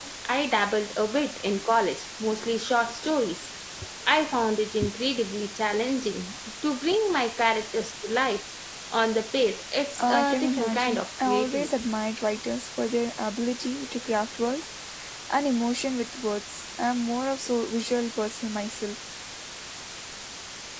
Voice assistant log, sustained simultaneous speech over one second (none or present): present